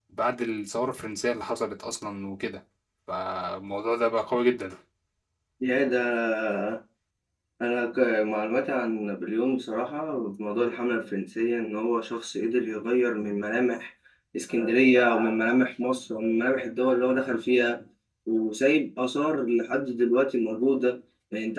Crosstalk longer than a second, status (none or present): none